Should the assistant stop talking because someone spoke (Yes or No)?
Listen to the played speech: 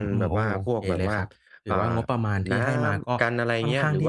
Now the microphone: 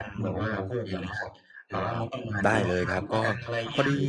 Yes